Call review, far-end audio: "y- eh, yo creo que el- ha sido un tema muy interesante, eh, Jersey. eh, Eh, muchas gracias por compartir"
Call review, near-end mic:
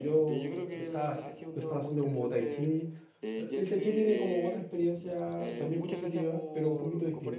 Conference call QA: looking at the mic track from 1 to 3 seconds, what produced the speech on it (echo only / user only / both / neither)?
both